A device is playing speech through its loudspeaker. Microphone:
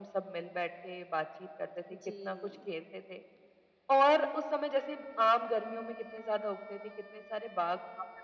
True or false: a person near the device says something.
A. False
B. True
B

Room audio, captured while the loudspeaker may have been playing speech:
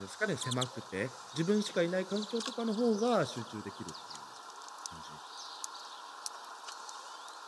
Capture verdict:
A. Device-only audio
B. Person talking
B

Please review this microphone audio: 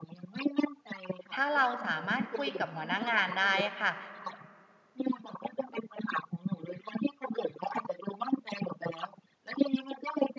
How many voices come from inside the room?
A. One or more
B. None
A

